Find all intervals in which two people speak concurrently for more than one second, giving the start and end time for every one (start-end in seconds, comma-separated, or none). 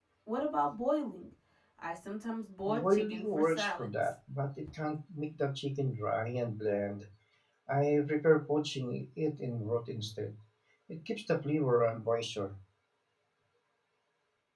2.7-4.1